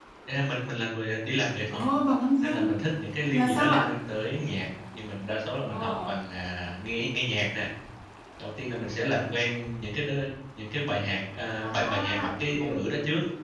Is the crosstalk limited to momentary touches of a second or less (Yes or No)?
No